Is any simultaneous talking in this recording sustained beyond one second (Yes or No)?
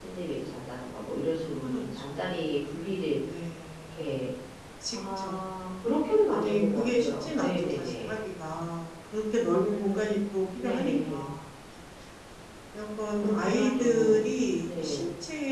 Yes